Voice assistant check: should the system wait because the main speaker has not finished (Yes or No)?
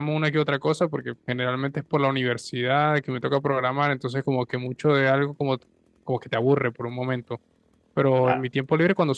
Yes